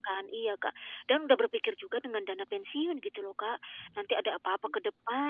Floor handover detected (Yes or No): No